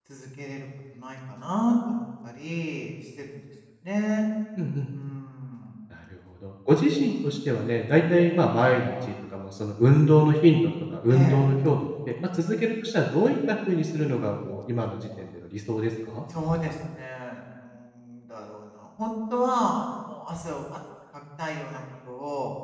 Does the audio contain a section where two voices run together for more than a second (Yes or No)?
No